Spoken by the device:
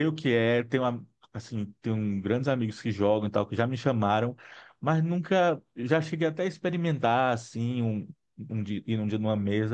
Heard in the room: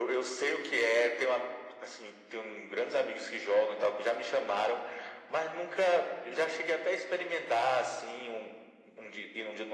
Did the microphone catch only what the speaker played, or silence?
Yes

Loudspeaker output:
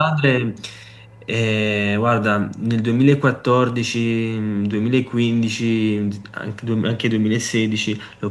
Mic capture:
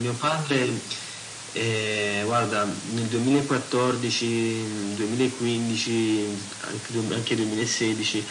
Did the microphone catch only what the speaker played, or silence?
Yes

